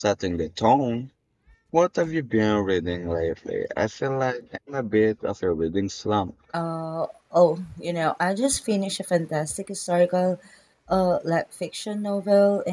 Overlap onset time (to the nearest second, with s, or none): none